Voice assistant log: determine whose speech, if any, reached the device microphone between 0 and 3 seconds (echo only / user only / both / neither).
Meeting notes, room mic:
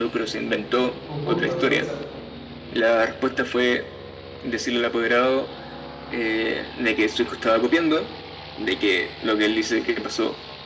both